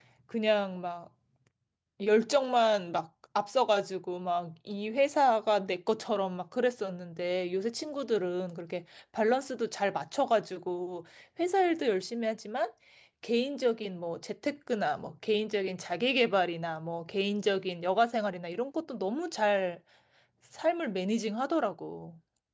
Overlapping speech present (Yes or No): No